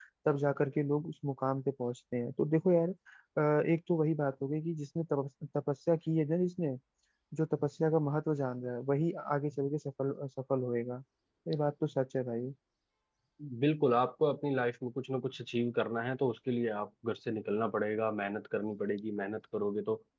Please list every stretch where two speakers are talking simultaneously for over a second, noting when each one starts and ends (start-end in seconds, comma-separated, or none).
none